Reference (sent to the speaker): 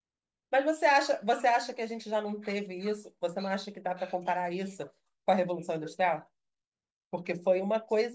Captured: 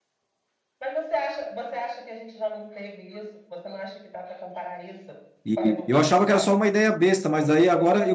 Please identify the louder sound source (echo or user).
user